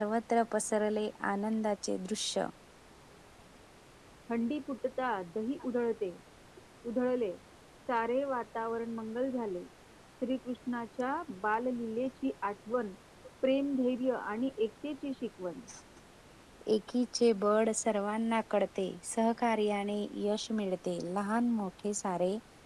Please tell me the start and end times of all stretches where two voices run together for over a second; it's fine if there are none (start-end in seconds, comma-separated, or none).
none